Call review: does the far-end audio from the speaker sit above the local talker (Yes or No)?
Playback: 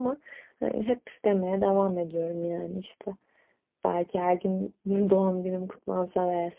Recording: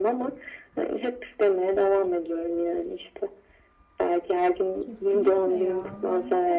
Yes